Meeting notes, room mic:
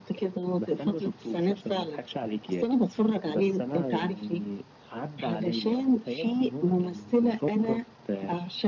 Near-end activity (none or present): none